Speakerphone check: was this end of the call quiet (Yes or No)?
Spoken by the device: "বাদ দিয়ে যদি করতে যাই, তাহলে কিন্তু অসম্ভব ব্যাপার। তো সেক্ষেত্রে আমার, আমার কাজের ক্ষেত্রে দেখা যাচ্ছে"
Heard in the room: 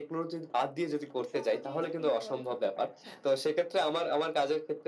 No